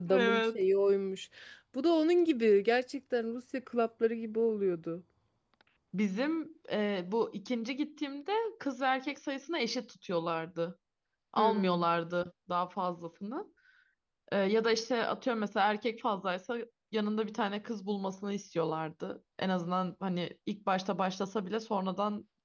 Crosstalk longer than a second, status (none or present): none